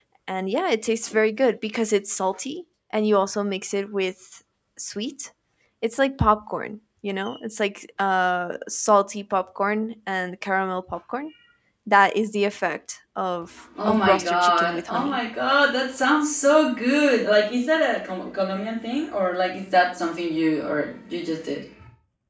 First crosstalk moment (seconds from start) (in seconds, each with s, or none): 13.8 s